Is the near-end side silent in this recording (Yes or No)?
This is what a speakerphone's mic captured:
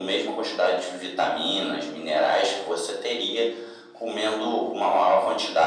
Yes